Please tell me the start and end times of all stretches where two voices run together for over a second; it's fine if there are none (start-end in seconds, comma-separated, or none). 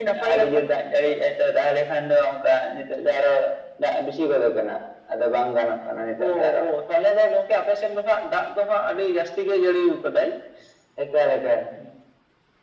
none